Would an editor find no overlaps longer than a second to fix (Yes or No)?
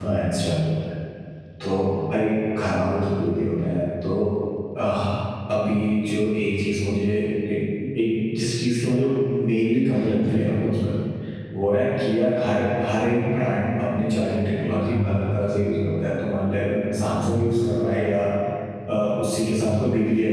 No